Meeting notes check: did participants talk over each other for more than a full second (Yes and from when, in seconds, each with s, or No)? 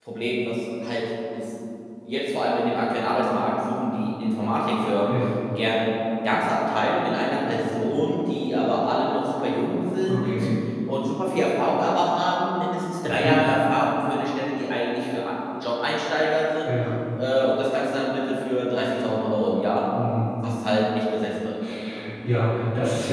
No